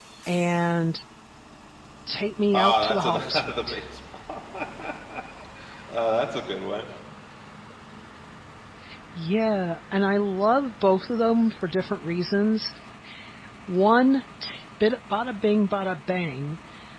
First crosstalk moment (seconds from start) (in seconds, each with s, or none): 2.5 s